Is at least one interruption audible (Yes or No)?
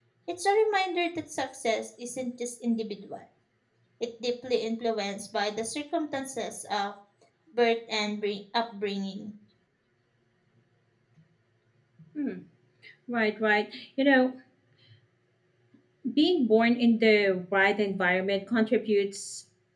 No